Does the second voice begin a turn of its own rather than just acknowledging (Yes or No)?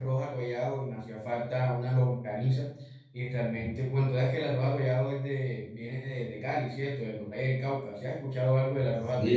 Yes